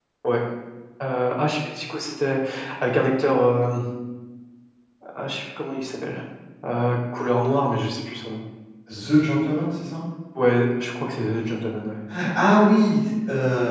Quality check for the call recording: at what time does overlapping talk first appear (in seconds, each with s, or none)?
none